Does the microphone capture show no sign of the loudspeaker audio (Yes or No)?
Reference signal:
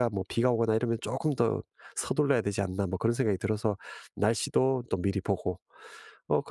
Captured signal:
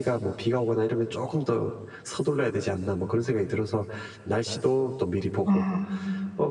No